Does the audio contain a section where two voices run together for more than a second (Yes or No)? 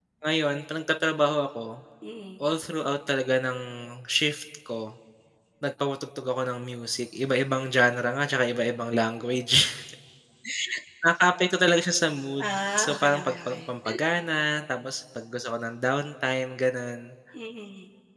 Yes